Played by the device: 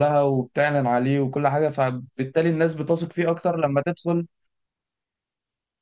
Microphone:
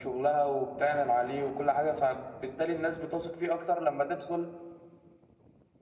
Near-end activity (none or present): none